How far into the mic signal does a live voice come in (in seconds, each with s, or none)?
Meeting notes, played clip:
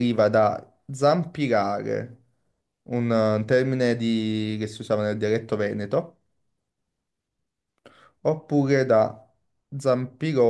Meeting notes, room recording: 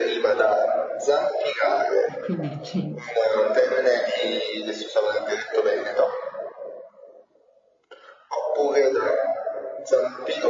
2.1 s